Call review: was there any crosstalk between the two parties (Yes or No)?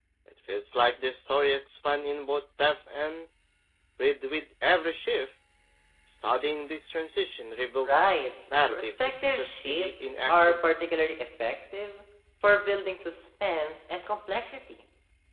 Yes